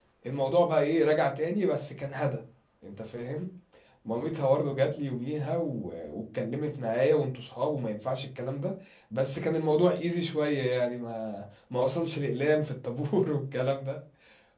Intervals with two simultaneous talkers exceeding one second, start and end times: none

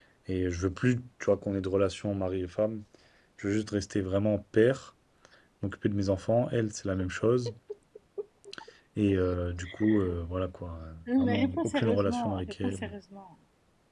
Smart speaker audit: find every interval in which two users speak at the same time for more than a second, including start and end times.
11.2-12.8

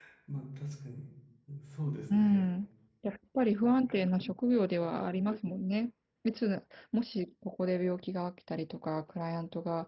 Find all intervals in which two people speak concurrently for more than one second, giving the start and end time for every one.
none

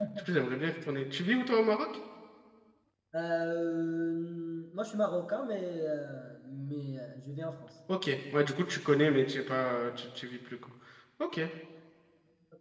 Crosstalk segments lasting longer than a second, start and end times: none

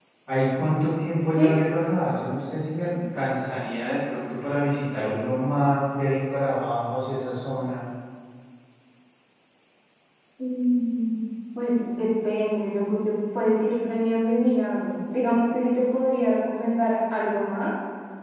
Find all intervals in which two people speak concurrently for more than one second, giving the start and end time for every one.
none

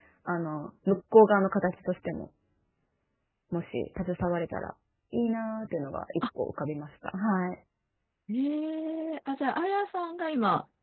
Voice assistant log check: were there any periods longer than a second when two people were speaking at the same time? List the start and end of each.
none

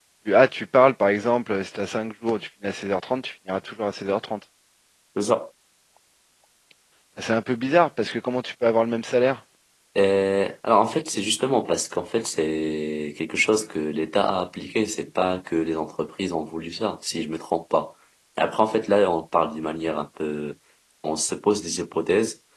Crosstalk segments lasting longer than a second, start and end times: none

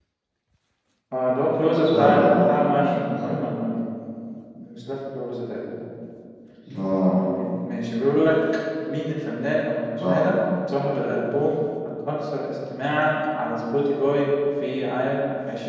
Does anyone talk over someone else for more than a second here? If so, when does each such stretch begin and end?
1.8-3.4

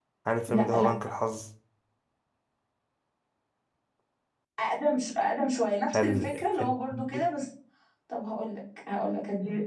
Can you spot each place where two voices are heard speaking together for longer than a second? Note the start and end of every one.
6.0-7.2

